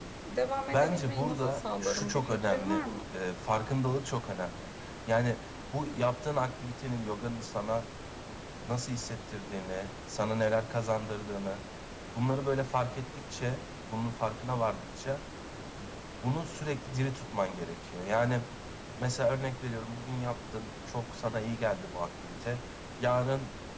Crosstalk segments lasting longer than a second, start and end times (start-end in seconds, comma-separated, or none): 0.7-2.9